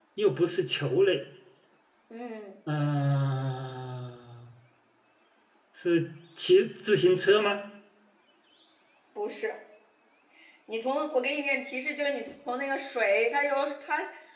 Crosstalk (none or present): none